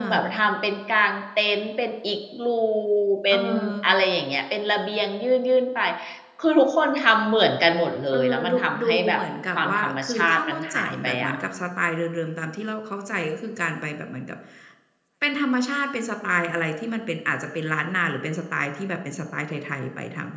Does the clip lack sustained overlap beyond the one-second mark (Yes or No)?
No